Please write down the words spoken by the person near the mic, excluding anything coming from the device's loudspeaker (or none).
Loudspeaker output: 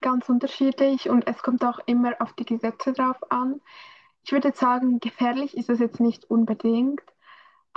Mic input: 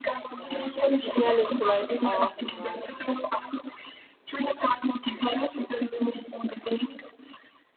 äh, gefährlich vielleicht auch, oder